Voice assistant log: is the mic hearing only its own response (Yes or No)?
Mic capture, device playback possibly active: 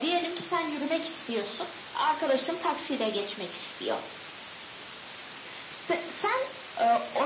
Yes